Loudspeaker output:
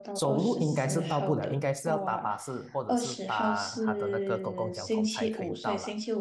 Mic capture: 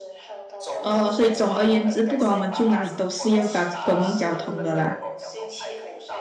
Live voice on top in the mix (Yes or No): Yes